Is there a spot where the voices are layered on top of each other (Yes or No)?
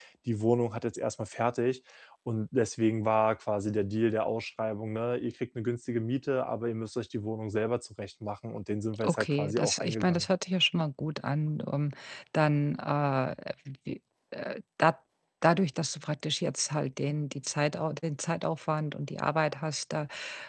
Yes